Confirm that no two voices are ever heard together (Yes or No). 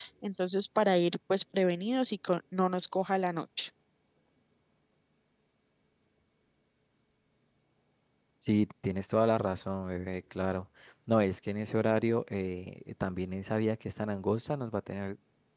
Yes